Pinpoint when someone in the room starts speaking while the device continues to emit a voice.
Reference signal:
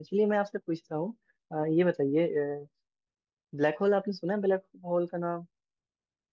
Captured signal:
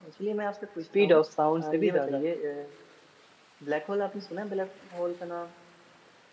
0.8 s

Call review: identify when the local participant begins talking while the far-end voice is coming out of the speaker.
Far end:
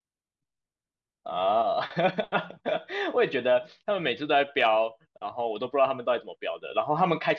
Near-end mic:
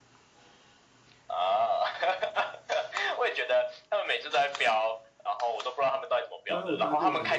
6.5 s

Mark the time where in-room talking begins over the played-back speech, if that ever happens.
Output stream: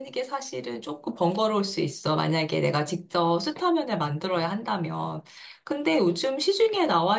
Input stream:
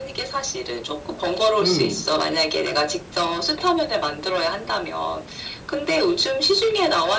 1.6 s

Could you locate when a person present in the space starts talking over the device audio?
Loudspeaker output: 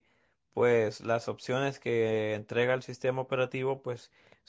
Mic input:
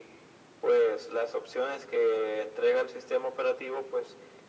none

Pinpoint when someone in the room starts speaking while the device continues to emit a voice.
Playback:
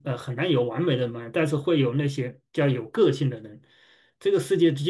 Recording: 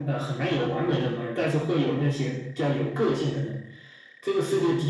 none

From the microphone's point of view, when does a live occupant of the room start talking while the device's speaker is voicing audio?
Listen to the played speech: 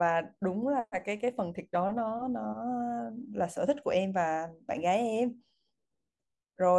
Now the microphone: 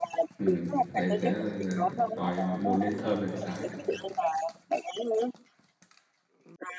0.4 s

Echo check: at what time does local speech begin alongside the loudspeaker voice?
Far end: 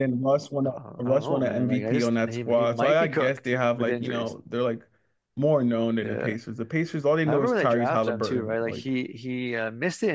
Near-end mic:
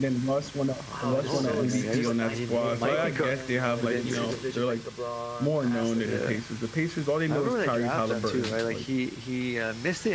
0.9 s

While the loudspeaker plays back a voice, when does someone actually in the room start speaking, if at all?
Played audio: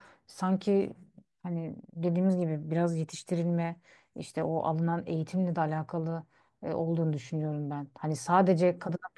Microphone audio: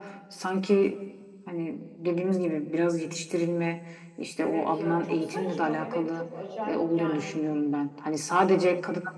4.4 s

